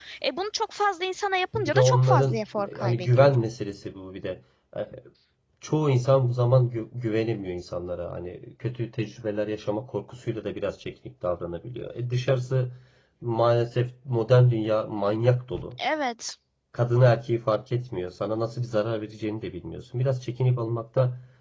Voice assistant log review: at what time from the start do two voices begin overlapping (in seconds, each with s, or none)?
1.6 s